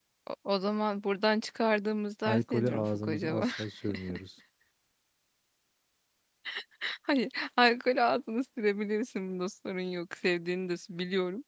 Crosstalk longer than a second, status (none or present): present